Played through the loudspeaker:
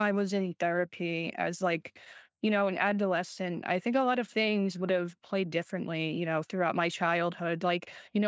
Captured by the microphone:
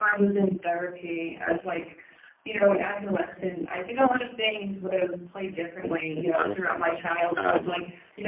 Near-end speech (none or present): present